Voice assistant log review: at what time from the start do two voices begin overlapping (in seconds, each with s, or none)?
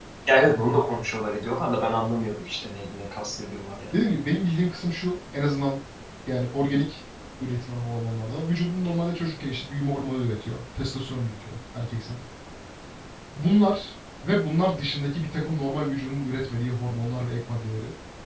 none